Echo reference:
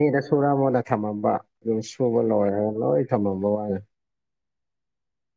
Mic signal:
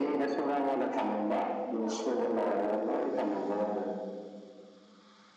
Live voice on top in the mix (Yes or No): No